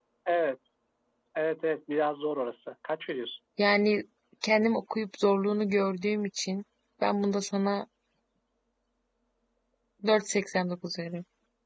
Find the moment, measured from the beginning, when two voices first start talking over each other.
none

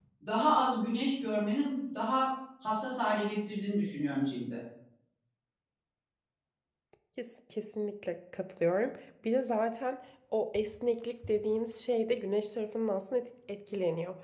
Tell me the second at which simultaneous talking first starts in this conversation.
none

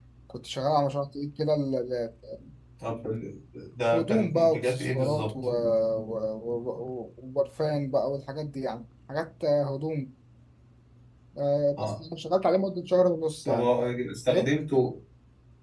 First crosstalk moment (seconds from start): 4 s

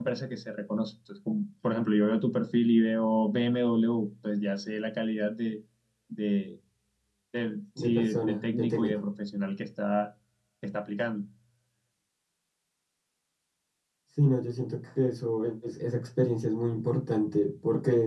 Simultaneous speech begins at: 8 s

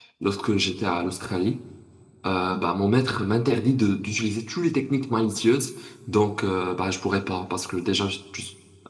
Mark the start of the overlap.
none

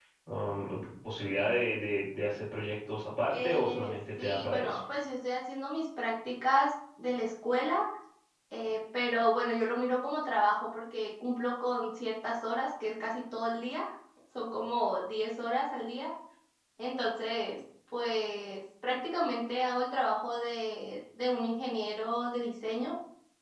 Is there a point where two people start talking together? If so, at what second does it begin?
3 s

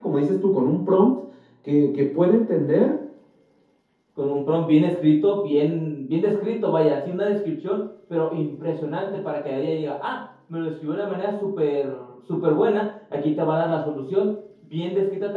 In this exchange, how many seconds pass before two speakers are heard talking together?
none

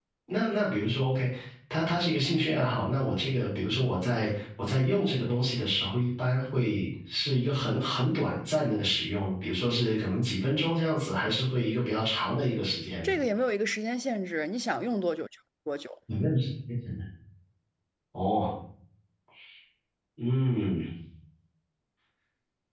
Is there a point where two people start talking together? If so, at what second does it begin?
none

